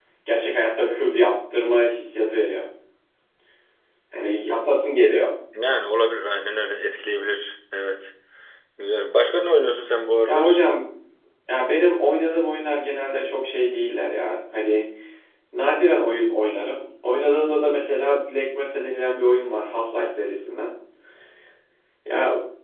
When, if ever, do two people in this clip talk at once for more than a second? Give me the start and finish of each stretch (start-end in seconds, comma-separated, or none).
none